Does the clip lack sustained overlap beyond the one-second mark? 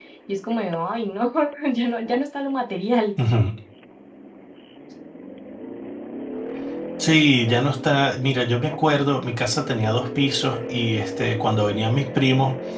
Yes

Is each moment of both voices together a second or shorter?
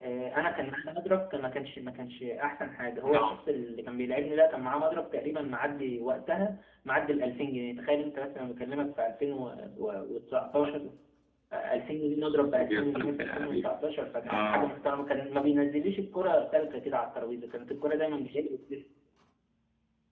No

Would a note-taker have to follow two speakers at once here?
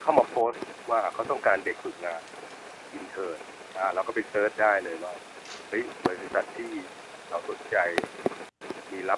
No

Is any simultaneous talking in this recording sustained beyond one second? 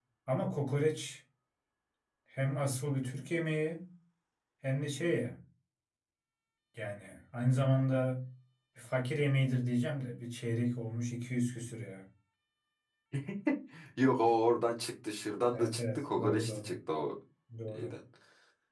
Yes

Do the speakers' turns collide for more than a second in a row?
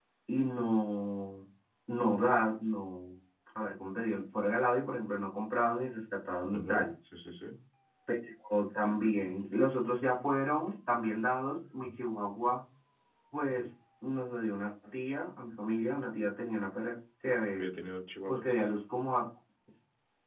No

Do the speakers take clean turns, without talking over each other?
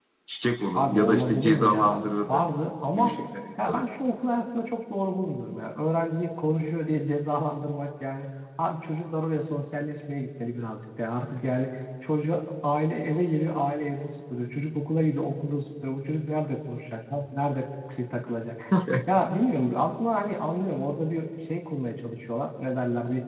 No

